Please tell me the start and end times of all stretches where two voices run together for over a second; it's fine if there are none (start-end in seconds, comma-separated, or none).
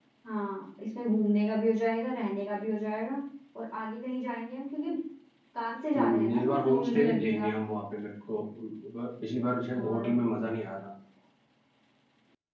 6.0-7.5